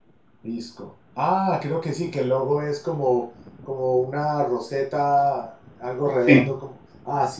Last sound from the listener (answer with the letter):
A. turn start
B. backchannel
B